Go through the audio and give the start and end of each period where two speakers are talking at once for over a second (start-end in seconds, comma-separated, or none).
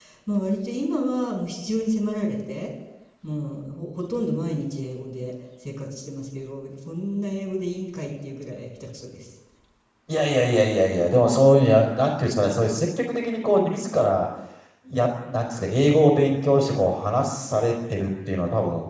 none